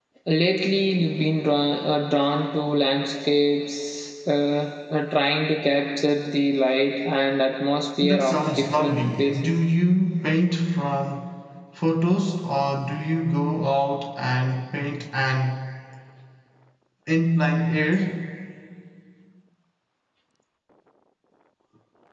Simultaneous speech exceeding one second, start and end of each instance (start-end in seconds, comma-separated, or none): 8.0-9.5